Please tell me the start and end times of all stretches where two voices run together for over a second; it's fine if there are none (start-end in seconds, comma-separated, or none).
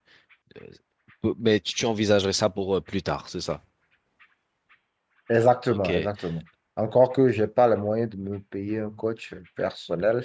none